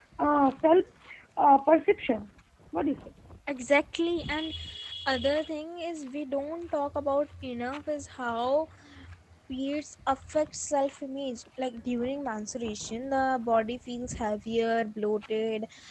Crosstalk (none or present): none